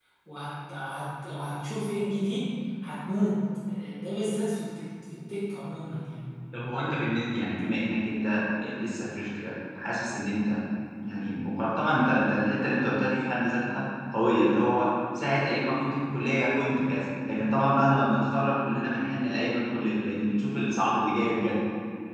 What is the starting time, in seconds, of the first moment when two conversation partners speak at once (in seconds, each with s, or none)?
none